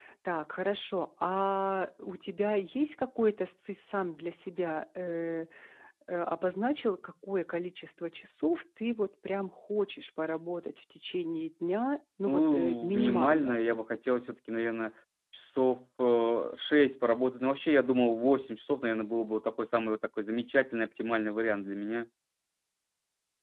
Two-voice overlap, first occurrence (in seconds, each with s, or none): 12.3 s